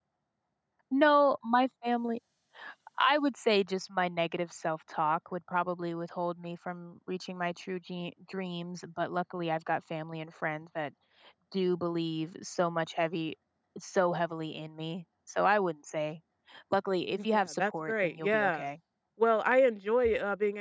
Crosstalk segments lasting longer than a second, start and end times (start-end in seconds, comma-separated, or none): 17.3-18.7